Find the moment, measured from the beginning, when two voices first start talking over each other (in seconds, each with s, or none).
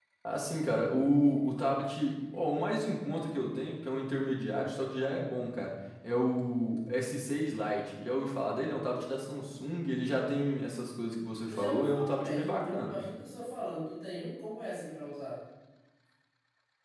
11.5 s